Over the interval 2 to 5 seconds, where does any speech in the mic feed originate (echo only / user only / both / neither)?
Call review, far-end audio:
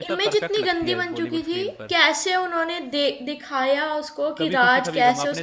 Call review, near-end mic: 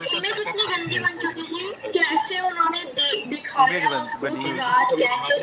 both